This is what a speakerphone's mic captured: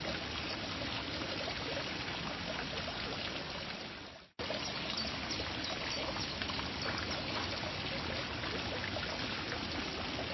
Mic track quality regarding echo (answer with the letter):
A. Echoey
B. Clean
B